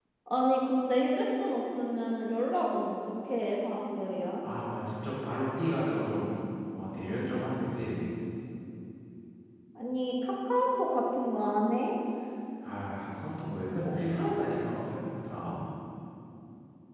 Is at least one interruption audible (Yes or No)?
No